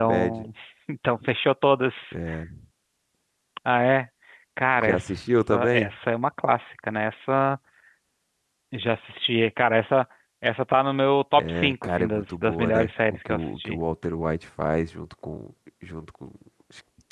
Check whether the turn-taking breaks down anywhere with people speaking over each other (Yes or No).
Yes